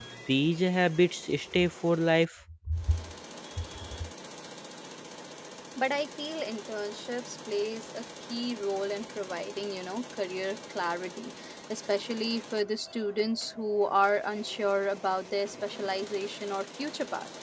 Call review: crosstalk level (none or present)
none